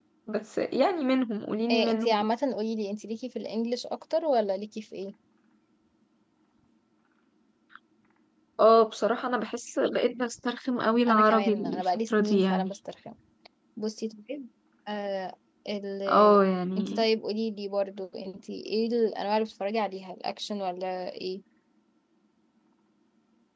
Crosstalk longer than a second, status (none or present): present